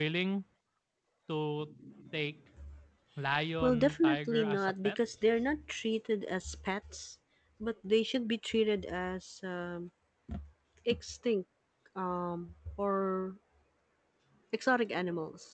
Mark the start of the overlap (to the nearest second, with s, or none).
4 s